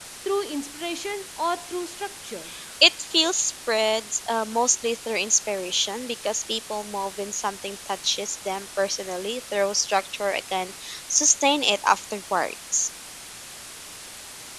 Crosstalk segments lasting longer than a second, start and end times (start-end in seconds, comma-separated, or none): none